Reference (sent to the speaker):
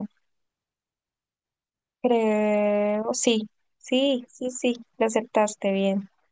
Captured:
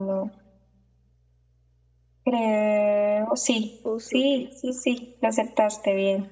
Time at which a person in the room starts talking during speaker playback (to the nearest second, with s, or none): 4 s